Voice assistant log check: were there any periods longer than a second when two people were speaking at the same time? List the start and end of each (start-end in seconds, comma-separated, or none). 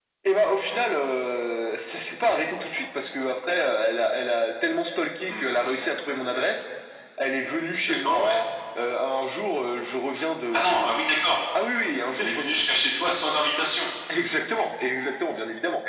none